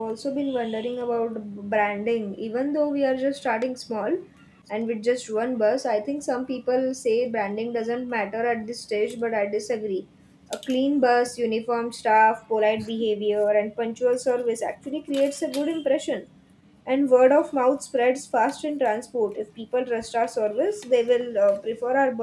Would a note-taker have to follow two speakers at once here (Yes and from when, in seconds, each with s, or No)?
No